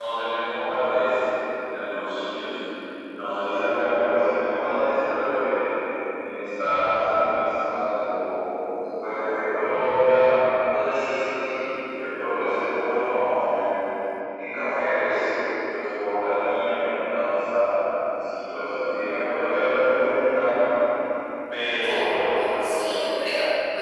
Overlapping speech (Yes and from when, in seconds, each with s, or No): Yes, from 21.8 s